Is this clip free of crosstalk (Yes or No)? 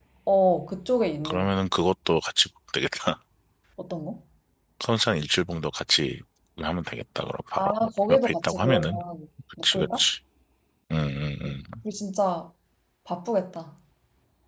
No